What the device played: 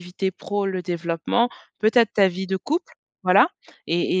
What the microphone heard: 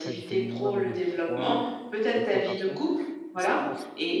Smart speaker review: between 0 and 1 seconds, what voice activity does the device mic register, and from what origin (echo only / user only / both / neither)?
both